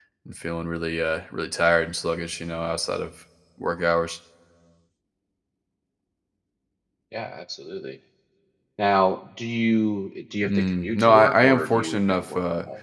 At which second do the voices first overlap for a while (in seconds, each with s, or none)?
10.4 s